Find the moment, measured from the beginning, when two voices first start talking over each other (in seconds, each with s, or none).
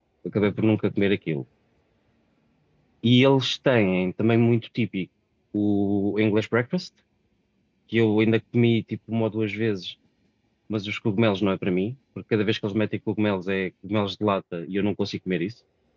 none